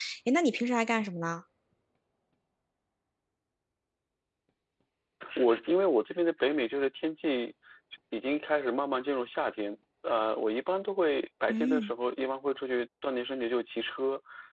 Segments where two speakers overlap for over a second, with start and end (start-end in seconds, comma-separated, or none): none